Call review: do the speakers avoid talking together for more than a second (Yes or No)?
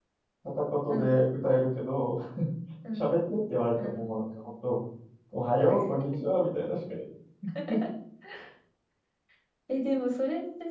Yes